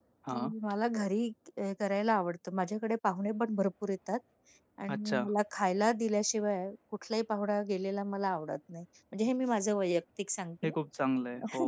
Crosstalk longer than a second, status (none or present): none